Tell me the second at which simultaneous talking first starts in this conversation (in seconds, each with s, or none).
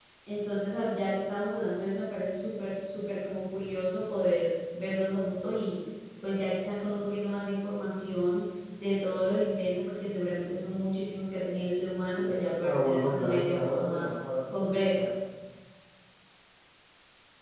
12.6 s